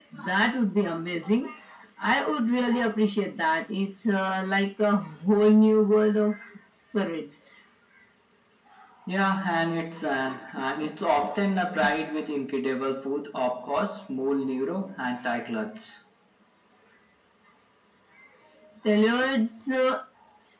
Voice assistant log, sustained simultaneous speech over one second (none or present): none